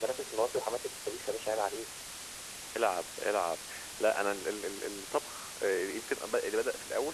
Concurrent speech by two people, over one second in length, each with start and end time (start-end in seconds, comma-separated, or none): none